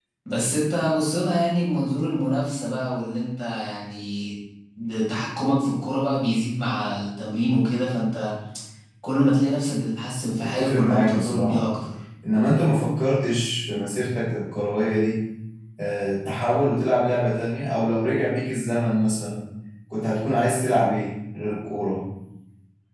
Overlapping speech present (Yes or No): Yes